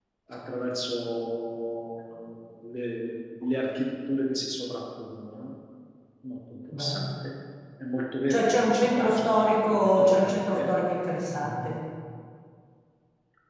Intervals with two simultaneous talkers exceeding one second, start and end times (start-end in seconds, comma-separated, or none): 8.3-10.7